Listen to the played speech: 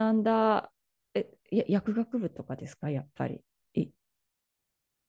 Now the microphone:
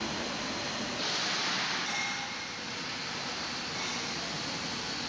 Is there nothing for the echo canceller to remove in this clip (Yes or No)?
Yes